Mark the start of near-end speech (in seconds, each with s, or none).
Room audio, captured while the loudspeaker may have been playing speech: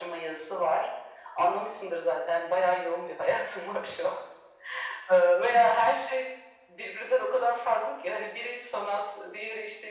none